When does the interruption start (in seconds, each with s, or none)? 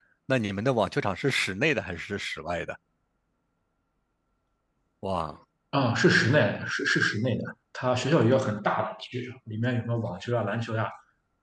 none